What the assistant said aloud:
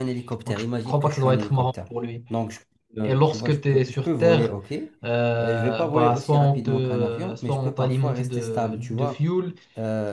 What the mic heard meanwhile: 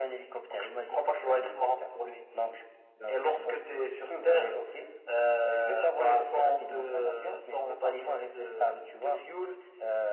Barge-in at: none

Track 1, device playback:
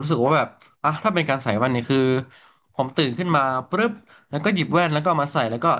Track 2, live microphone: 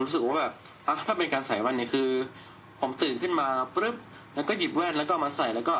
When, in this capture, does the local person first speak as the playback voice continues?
none

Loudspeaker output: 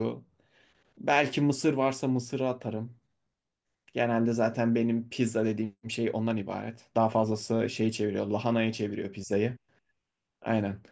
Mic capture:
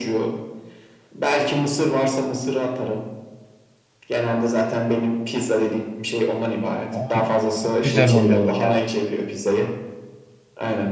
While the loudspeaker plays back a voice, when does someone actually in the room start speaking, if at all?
7 s

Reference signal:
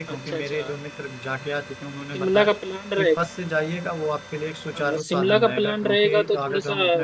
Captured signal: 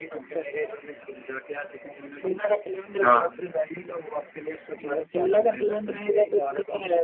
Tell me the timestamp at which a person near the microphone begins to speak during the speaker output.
3 s

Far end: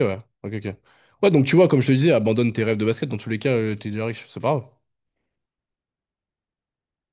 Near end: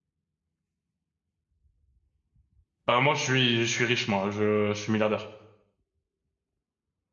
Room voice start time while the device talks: 3 s

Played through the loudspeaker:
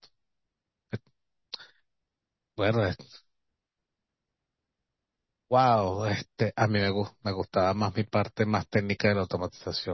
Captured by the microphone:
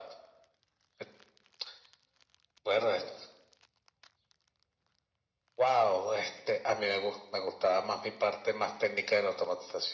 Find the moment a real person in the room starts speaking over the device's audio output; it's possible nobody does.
none

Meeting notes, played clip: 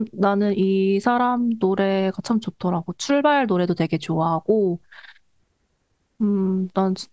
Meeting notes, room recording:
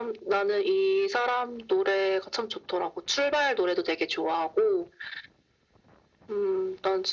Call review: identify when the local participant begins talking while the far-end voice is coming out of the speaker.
none

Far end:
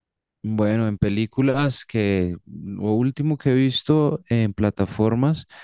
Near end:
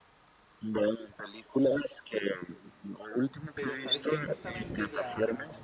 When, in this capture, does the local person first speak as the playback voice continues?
4 s

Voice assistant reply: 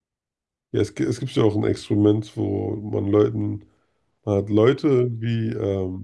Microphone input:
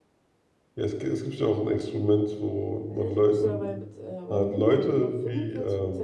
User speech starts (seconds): 3 s

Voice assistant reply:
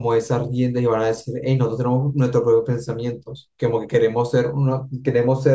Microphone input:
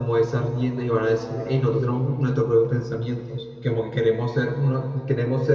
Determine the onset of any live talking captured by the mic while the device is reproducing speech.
none

